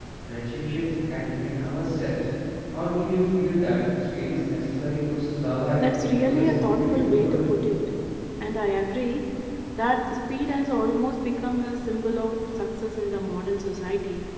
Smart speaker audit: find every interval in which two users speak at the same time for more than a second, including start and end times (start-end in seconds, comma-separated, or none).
6.0-7.5